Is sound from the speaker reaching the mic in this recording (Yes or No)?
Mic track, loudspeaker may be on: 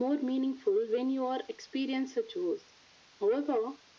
Yes